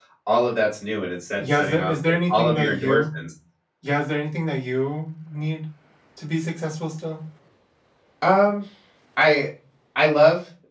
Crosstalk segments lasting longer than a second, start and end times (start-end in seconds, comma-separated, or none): 1.4-3.2